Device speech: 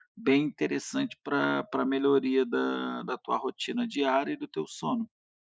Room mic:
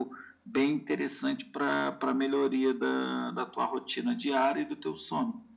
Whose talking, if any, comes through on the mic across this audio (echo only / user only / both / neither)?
echo only